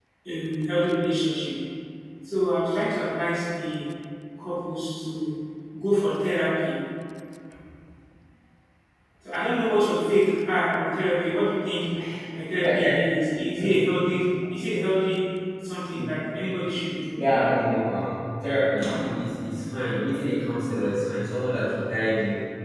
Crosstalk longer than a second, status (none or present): none